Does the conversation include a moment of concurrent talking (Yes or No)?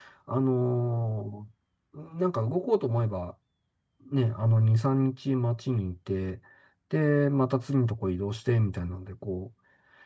No